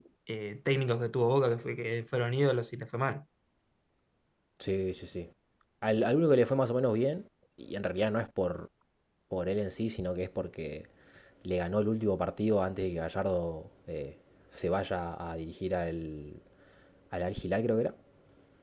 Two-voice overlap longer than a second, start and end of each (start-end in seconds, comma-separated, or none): none